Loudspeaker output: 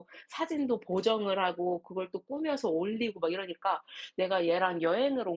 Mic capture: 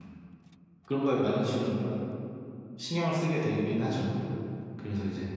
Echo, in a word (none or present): none